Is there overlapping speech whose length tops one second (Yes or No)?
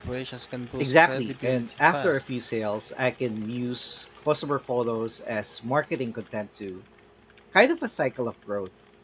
Yes